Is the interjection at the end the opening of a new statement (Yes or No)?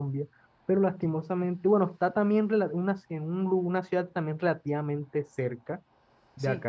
No